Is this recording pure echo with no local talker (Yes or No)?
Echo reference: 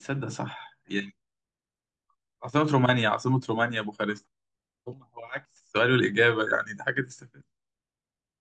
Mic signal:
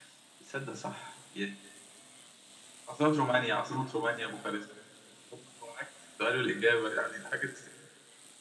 Yes